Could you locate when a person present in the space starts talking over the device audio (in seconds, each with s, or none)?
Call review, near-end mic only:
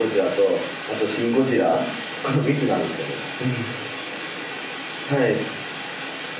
none